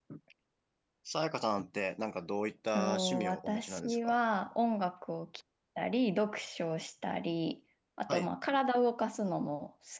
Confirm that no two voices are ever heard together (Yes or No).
No